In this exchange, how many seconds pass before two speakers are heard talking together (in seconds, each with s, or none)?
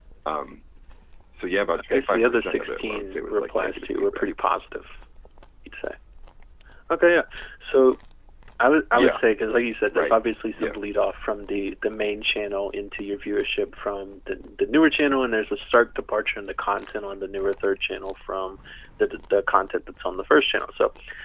1.9 s